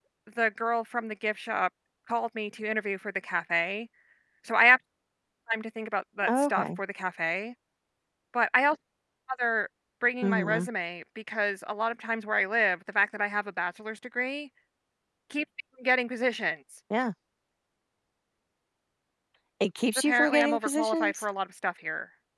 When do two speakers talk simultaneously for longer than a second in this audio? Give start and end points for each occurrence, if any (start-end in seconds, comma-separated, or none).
19.9-21.2